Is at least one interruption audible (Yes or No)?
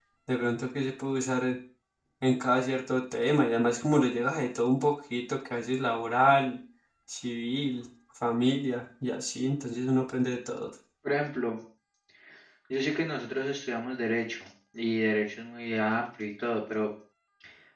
No